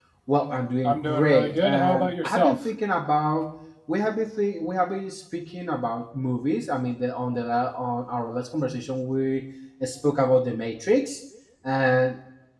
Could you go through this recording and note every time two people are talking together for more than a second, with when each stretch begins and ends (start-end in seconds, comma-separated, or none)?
0.8-2.7